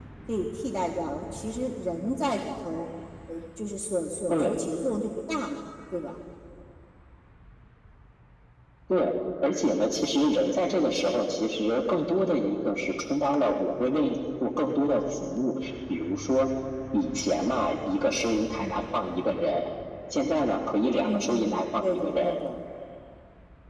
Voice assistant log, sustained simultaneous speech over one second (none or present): present